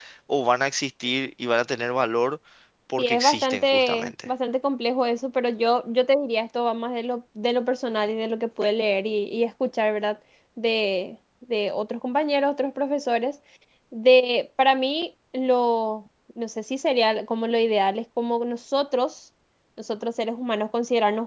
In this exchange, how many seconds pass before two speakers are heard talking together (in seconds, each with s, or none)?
3.0 s